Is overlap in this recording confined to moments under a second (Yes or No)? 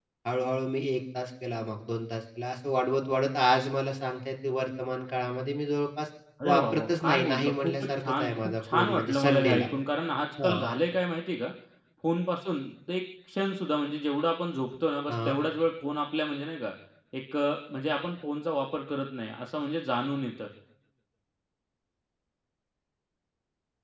No